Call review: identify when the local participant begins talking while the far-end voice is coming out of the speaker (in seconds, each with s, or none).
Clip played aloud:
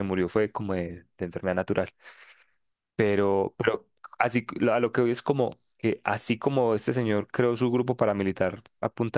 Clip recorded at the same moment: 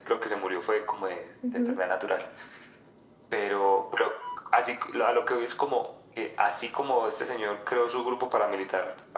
1.4 s